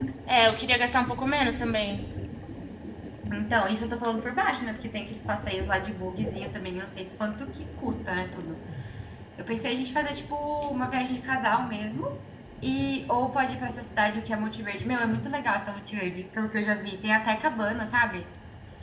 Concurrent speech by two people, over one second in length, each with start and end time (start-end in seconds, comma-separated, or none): none